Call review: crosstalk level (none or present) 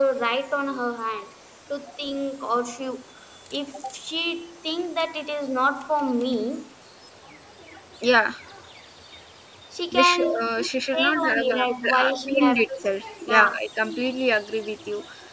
present